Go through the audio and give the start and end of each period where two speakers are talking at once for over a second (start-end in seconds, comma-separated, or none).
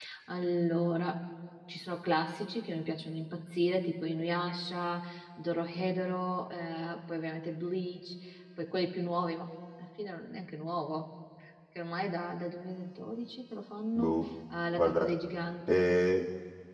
none